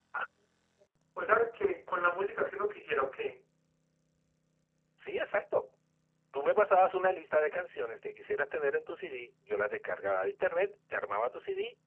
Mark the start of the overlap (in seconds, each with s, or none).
none